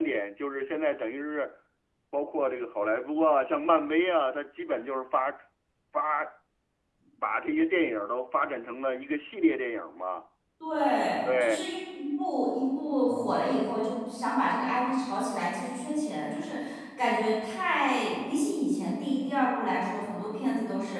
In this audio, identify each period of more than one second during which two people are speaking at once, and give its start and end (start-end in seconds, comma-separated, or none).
none